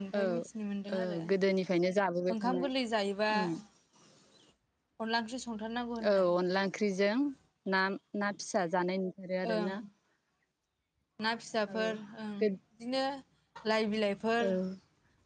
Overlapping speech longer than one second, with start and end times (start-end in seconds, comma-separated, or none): none